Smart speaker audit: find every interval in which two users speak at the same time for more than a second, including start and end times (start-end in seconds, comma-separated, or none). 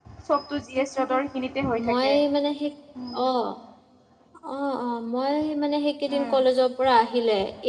none